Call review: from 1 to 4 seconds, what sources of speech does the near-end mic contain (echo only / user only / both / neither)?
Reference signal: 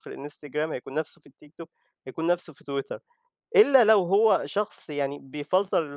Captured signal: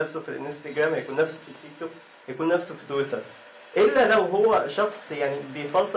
echo only